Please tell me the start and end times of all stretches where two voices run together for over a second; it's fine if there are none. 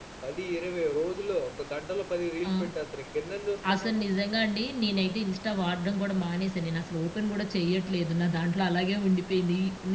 none

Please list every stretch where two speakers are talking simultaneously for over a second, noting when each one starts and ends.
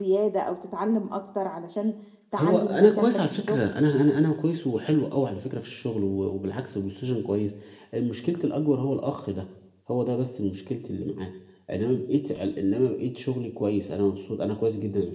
2.4-3.6

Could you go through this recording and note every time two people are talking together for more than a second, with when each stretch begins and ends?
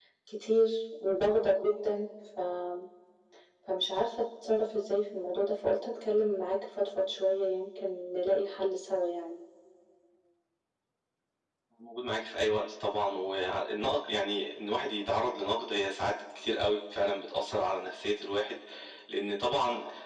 none

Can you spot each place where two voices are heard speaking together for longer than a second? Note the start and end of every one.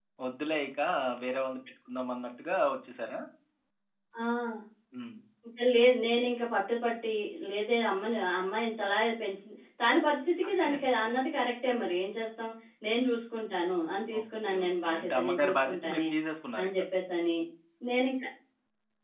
14.2-16.1

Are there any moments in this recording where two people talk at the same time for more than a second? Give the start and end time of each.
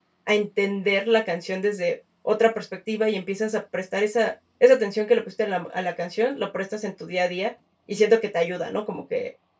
none

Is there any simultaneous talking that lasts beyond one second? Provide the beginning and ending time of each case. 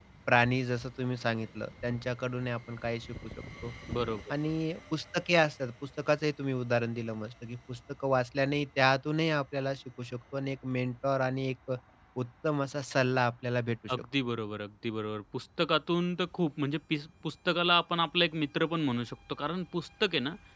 none

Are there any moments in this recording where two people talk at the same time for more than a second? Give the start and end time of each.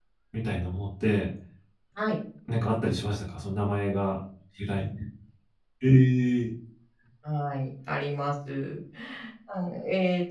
none

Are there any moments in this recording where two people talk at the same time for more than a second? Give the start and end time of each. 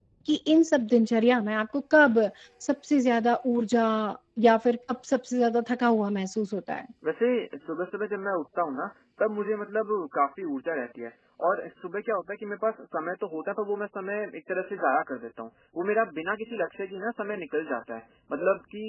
none

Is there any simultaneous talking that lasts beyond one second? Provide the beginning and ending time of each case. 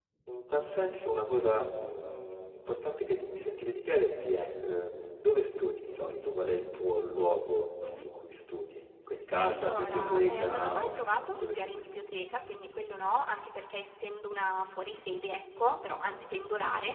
9.4-11.9

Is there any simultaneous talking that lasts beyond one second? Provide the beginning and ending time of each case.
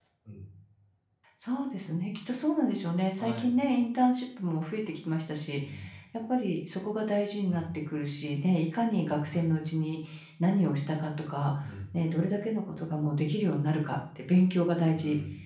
none

